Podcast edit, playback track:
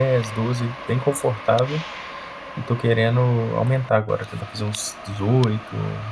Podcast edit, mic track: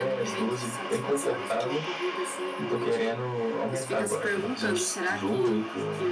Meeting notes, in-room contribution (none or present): present